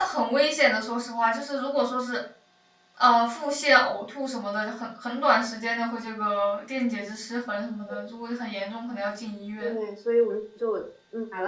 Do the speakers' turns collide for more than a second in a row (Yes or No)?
No